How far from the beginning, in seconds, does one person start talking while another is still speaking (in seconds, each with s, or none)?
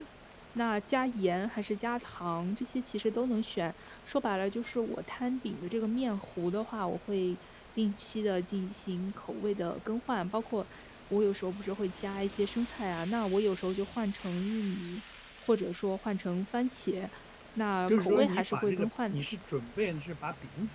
17.9 s